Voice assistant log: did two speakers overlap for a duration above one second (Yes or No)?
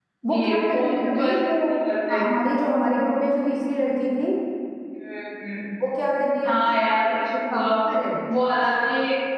Yes